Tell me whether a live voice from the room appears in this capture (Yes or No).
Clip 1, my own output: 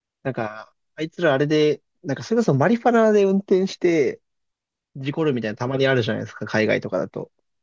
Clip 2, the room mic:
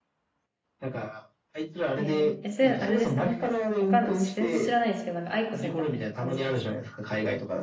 Yes